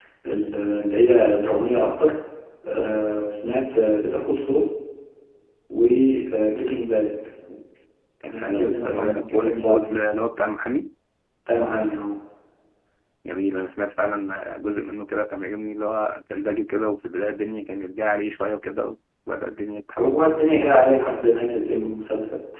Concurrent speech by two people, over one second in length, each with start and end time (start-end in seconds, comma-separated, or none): 8.3-10.0